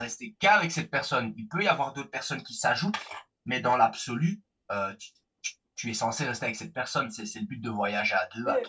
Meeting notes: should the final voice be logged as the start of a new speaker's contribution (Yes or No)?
Yes